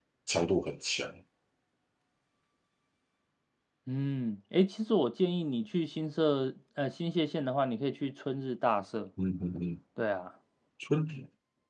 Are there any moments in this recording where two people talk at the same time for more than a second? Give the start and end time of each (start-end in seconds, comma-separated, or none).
none